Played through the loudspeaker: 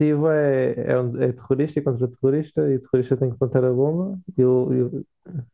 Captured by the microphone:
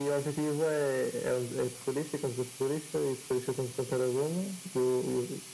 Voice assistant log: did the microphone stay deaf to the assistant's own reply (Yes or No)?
No